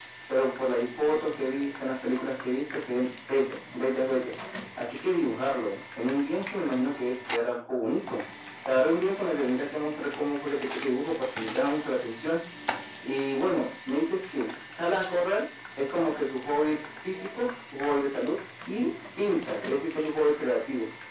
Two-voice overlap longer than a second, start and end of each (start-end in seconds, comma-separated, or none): none